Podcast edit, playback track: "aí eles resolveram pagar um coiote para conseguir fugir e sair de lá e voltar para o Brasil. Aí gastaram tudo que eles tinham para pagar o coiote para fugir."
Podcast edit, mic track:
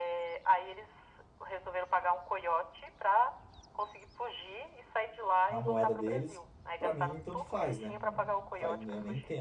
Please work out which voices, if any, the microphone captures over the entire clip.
both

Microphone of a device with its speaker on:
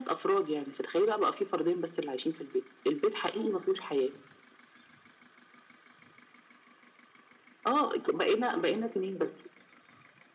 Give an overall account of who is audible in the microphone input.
echo only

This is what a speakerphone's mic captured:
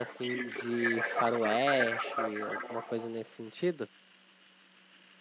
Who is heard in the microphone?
both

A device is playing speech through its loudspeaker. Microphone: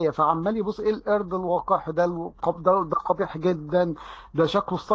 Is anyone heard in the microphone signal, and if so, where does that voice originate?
user only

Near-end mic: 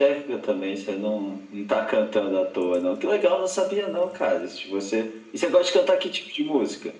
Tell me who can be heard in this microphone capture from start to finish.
echo only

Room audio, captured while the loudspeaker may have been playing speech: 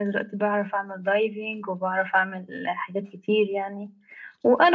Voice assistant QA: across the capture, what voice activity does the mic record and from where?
echo only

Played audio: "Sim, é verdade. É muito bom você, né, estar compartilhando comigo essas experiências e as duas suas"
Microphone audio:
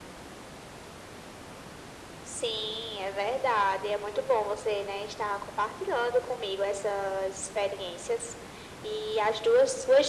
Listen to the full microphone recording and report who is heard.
echo only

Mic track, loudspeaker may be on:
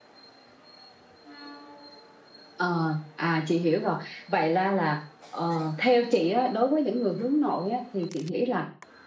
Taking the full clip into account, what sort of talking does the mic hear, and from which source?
echo only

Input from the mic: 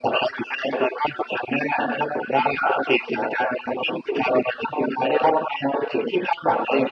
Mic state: echo only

